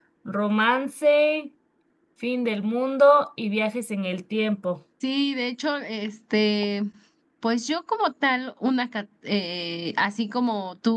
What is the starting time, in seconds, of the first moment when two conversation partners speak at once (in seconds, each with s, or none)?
none